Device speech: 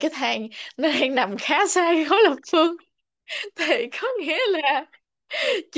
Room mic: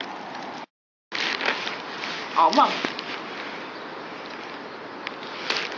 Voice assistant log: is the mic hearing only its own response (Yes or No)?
No